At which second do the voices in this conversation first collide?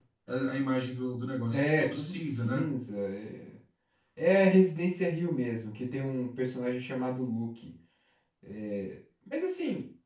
1.5 s

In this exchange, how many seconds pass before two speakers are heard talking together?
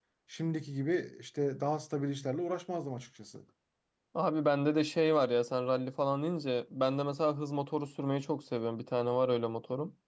none

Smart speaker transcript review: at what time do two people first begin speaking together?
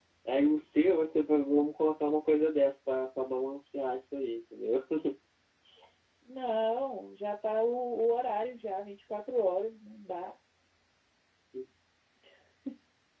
none

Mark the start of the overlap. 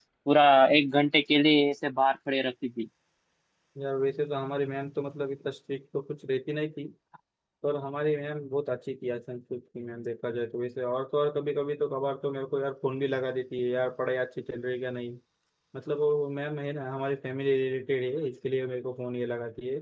none

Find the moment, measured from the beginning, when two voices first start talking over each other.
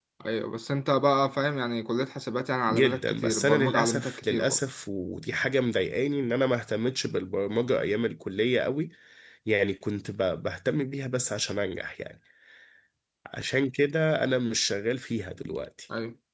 2.7 s

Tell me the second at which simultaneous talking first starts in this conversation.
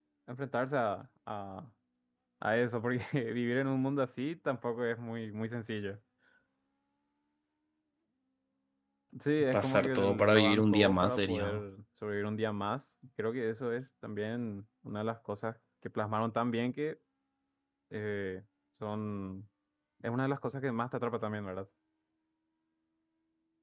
9.5 s

